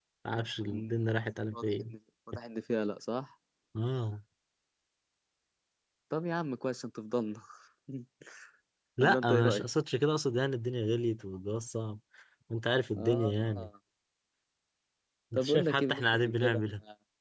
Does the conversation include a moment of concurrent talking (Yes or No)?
Yes